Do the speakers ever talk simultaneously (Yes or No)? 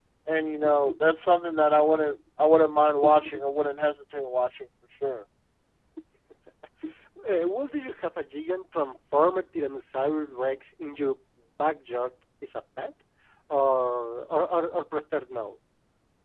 No